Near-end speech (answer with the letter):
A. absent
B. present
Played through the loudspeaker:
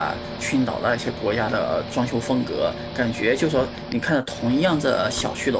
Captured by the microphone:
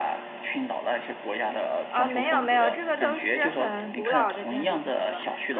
B